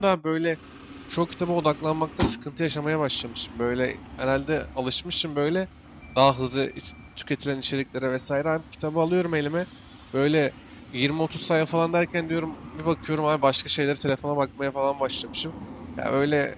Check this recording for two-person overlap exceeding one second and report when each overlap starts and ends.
none

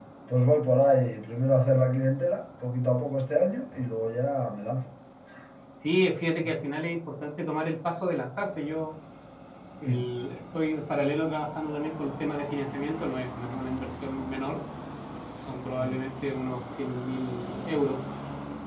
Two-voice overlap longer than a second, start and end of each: none

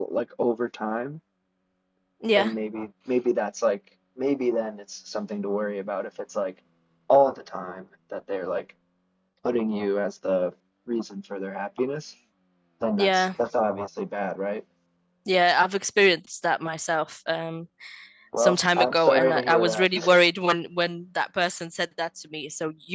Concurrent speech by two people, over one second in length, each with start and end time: 18.4-20.1

